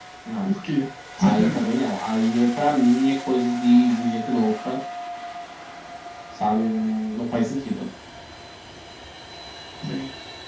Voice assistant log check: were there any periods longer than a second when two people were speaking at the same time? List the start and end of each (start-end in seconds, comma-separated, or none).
none